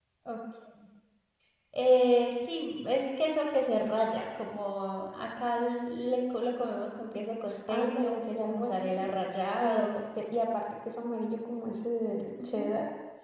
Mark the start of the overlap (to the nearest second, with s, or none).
8 s